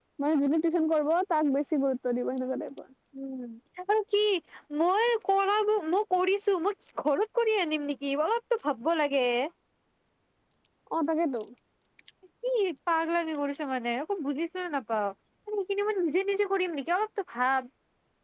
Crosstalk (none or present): none